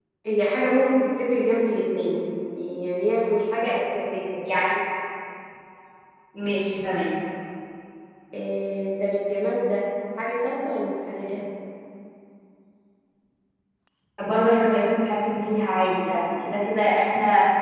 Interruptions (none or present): none